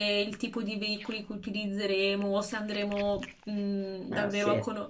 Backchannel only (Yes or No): Yes